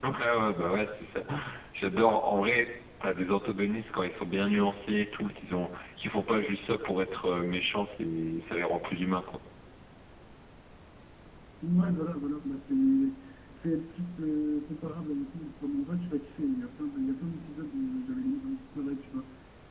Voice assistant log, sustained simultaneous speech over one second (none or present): none